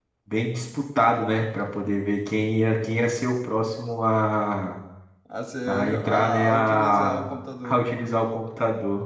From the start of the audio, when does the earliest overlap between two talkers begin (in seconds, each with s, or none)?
5.7 s